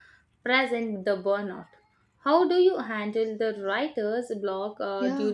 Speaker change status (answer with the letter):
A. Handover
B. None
A